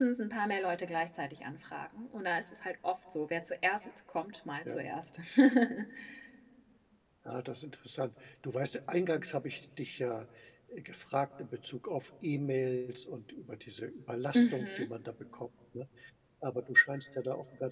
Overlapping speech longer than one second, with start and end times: none

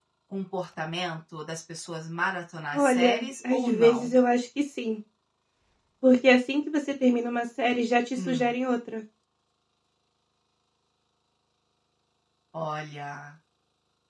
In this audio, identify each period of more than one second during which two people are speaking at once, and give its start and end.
2.7-4.1

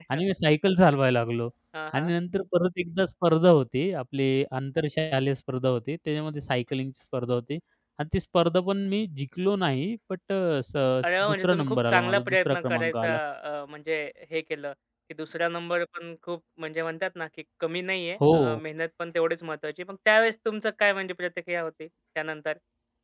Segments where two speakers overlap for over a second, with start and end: 11.2-13.1

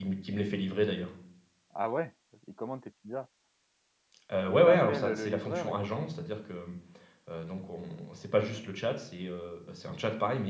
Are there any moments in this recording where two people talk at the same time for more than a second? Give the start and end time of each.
4.5-5.9

